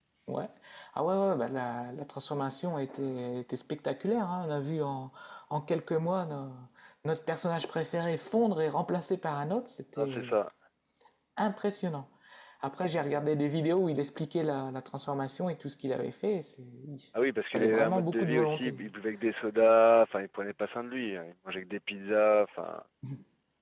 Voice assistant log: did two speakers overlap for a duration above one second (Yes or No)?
Yes